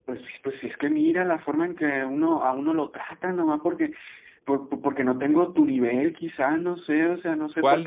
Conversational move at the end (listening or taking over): taking over